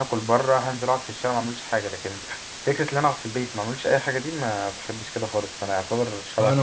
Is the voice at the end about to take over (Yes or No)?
Yes